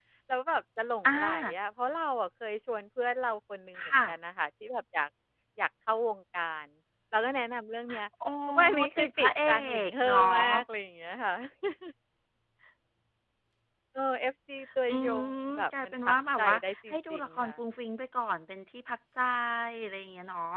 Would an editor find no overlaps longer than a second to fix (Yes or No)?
No